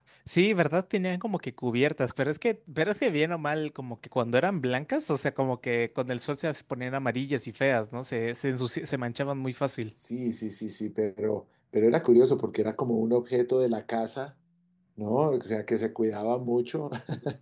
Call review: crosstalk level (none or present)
none